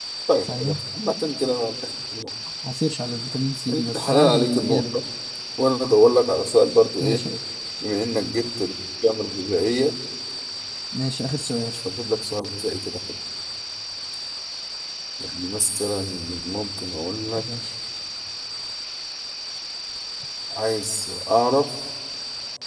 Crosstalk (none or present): present